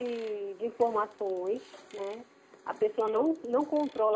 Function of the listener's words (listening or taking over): listening